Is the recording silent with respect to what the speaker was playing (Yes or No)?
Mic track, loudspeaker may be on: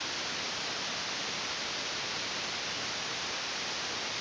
Yes